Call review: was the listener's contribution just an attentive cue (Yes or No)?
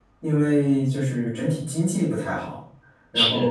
Yes